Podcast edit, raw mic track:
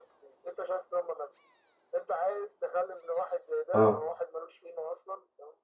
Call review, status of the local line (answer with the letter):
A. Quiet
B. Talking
B